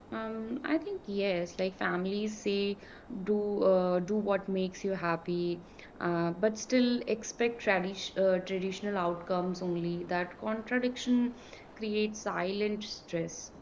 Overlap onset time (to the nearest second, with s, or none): none